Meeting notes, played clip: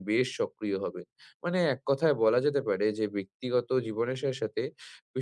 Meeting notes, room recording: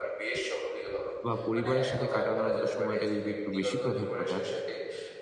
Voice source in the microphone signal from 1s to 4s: both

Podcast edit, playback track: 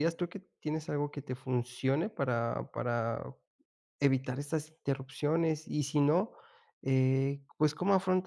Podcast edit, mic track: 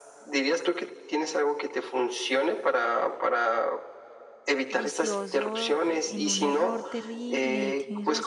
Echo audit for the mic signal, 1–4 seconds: echo only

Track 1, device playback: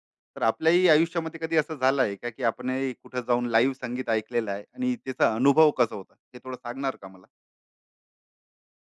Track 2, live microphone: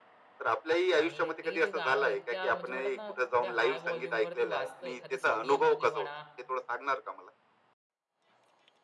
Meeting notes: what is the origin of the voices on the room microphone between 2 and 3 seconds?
both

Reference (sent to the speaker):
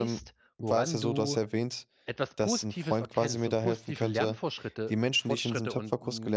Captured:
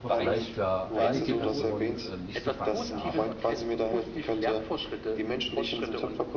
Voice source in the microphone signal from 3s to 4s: both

